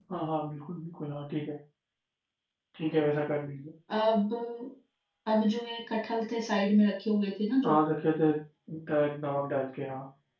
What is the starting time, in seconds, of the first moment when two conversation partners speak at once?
none

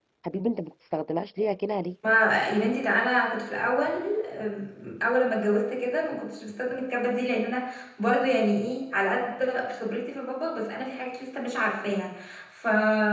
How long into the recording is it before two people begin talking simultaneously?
none

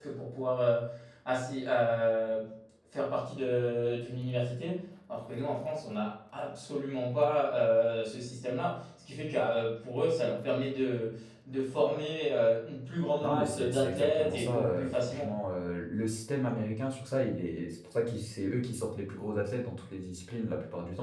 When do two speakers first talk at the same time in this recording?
13.2 s

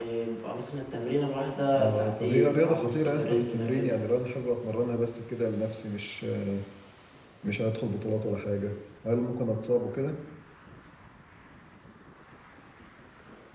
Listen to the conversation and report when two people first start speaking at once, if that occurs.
1.6 s

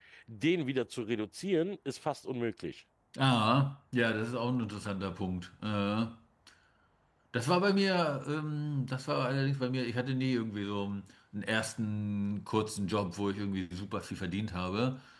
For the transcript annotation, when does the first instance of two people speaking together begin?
none

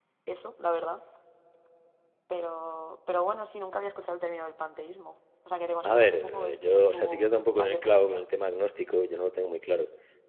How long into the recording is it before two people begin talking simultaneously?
5.8 s

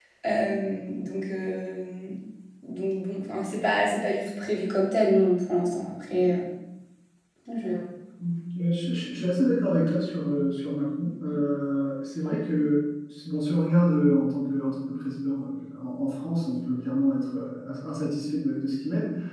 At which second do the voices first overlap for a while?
none

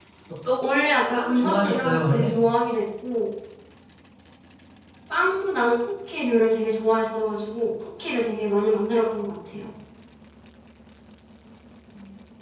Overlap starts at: 1.1 s

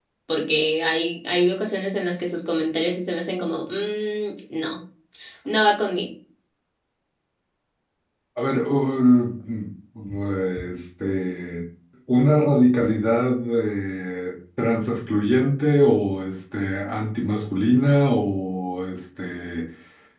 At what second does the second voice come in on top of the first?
none

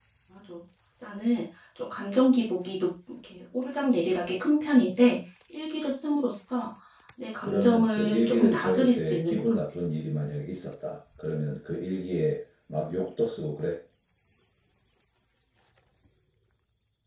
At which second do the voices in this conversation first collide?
7.4 s

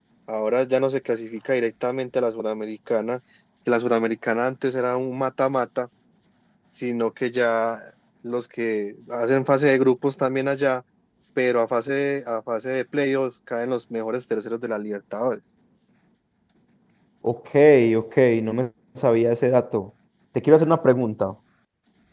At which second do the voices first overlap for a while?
none

